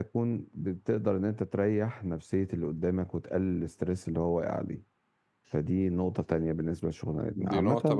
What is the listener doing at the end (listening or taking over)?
taking over